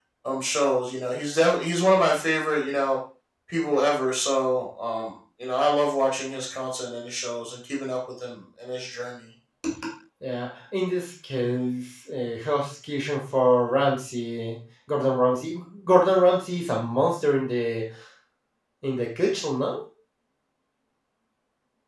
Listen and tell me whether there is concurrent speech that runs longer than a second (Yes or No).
No